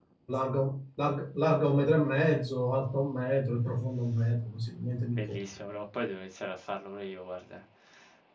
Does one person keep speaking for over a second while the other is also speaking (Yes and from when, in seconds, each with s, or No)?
No